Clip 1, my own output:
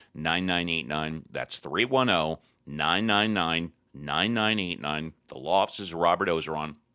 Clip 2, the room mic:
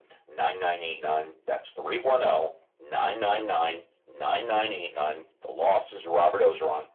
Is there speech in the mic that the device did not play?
No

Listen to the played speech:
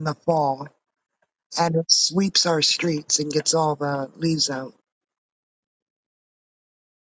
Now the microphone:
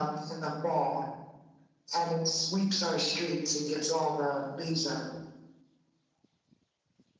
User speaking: No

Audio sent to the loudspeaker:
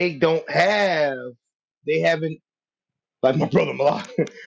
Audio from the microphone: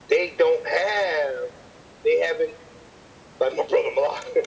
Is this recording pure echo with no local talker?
Yes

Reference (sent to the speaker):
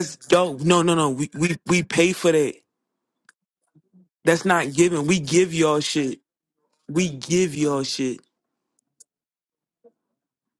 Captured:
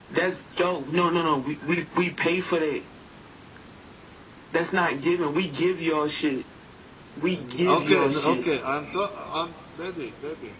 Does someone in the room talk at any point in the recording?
Yes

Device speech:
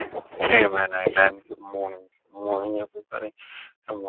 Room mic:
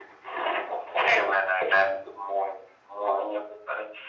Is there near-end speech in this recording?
No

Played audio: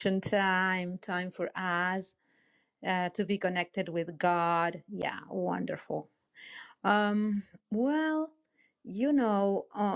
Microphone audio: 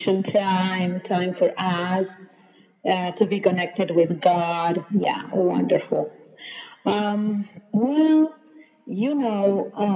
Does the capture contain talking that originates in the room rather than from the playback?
No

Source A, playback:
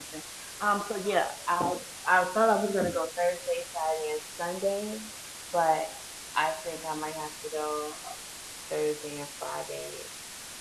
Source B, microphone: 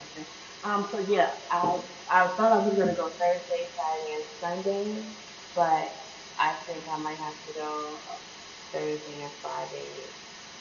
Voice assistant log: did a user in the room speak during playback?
No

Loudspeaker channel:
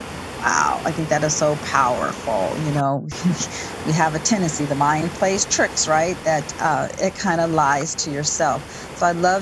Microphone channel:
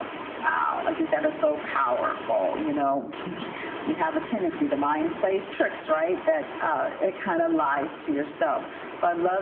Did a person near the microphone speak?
No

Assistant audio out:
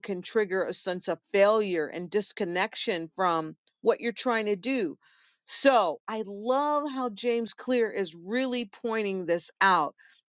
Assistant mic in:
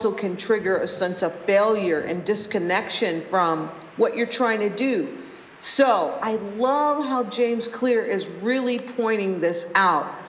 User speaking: No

